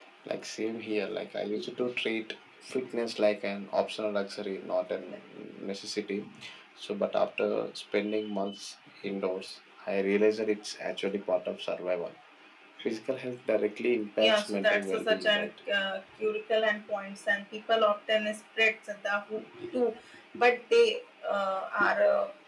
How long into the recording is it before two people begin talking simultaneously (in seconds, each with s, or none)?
14.2 s